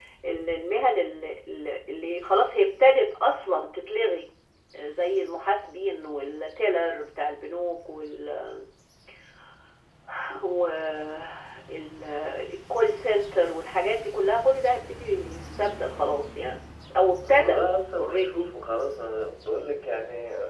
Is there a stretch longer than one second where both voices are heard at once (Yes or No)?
No